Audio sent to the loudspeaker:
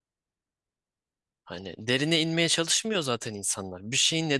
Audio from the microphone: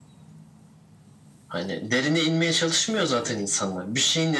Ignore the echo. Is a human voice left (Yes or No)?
No